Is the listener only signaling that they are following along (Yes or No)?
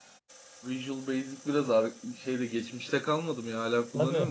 No